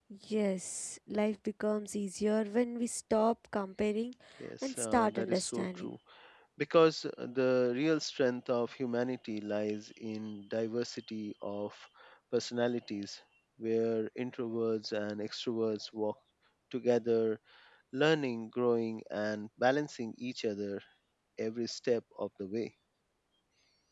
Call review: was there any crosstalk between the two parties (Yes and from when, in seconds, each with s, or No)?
Yes, from 4.6 s